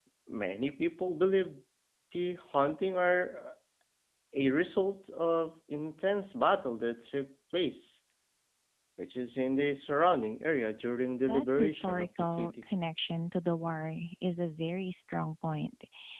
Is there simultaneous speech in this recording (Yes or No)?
Yes